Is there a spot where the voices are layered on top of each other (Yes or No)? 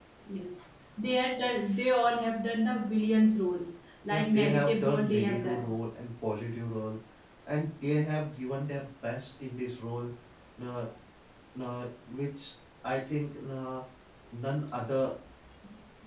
Yes